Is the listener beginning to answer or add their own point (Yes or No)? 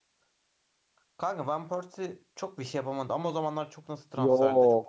Yes